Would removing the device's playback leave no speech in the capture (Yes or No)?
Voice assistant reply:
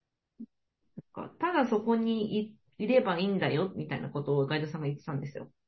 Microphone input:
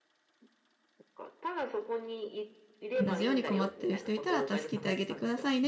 No